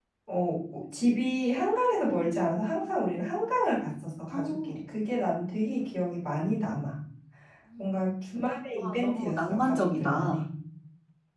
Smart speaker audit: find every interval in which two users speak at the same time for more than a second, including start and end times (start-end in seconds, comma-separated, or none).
8.8-10.4